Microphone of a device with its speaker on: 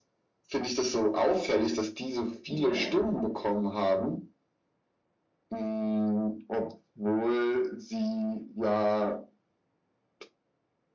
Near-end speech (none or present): present